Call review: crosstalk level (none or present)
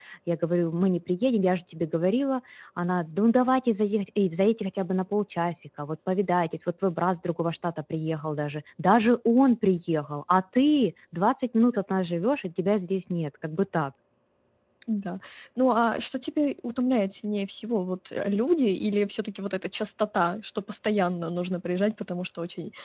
none